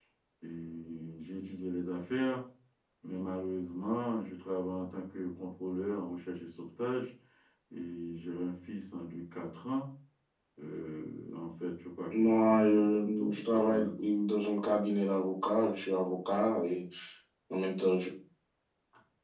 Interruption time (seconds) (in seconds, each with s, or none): 12.1 s